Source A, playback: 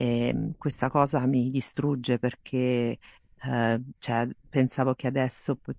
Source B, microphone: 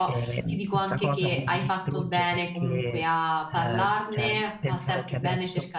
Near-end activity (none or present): present